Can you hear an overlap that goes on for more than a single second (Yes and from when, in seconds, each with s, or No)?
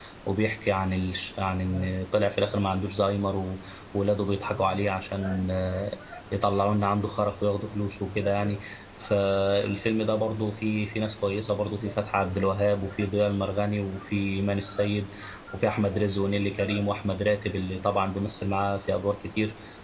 No